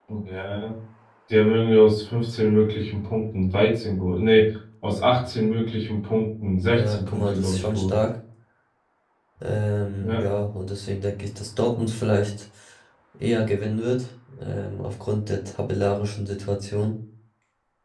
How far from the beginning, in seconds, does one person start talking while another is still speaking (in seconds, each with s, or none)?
6.7 s